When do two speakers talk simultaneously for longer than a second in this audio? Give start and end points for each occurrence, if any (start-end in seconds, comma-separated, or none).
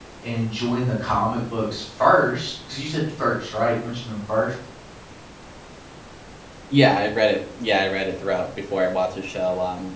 none